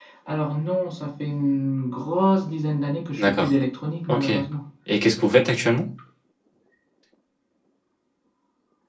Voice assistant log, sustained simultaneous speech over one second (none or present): none